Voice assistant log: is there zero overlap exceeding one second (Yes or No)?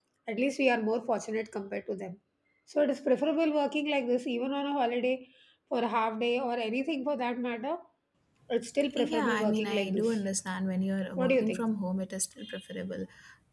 No